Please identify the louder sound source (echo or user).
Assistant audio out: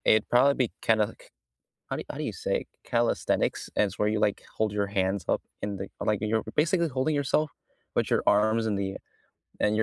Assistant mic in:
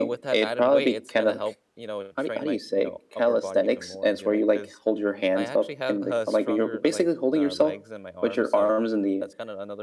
echo